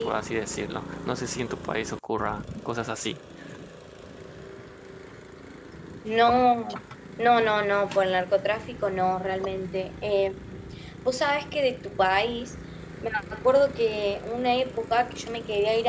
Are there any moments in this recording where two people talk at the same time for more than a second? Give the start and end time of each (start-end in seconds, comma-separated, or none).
none